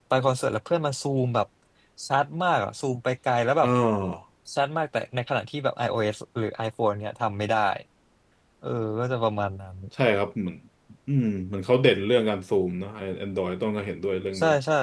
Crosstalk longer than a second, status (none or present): none